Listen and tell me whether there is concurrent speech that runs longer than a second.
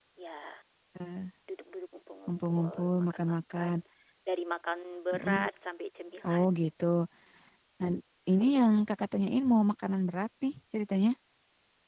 Yes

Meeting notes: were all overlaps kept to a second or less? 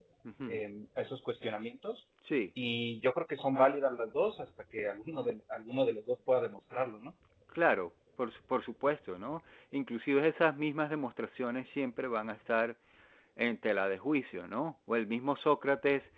Yes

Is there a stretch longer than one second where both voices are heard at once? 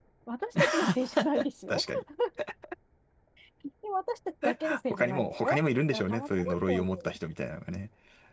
Yes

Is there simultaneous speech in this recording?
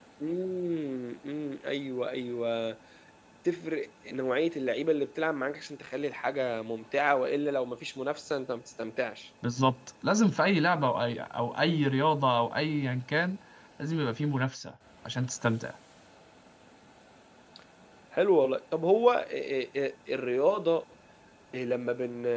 No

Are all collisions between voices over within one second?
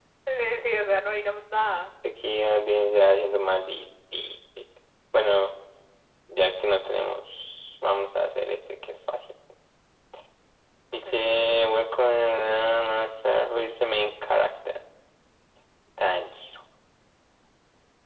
Yes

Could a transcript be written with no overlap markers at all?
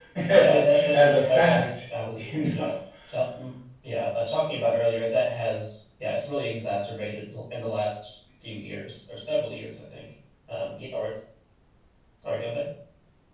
No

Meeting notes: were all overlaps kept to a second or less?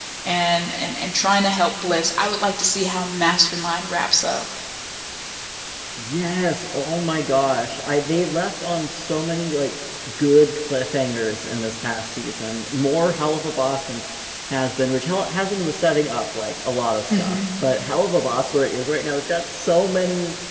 Yes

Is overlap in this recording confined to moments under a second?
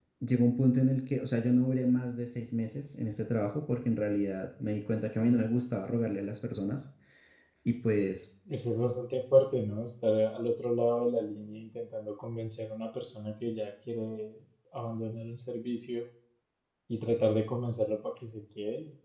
Yes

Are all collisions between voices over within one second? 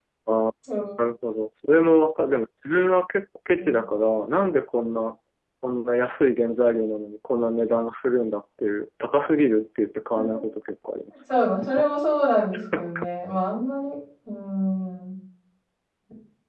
Yes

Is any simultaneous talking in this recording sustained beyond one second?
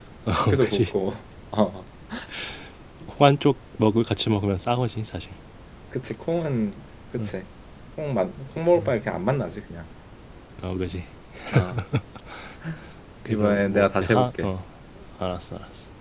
Yes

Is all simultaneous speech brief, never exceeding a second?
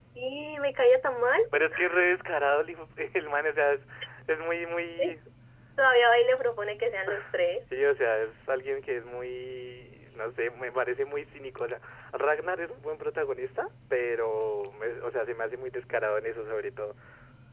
Yes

